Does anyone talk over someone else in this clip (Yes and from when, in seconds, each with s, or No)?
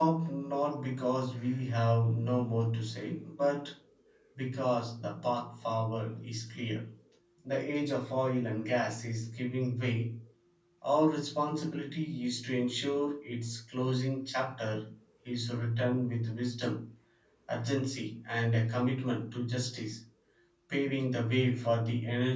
No